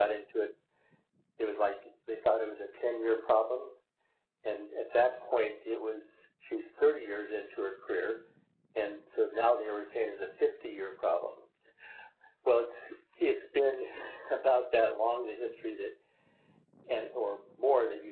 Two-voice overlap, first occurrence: none

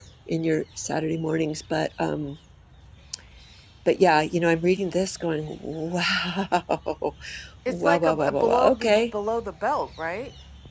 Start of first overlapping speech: 7.7 s

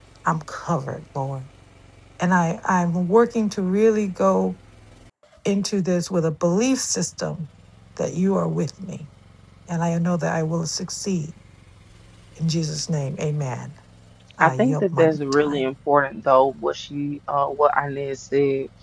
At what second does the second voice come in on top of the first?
14.4 s

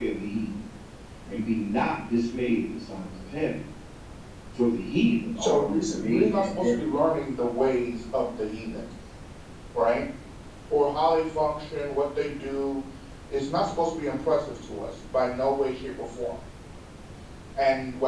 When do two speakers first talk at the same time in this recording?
5.4 s

